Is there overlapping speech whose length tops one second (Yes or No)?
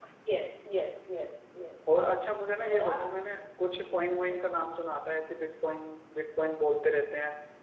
No